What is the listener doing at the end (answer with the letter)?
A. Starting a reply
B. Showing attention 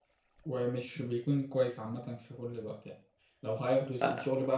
B